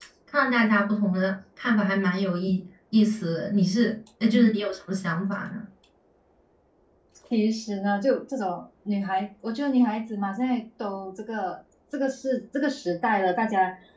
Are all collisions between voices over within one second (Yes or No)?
Yes